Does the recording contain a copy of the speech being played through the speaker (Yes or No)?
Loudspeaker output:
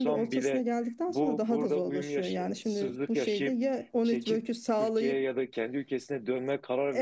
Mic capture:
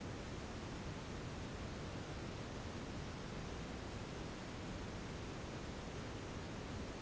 No